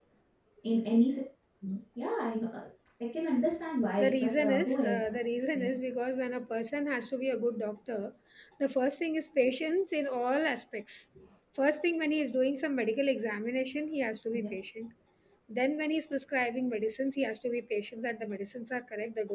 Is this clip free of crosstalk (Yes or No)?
No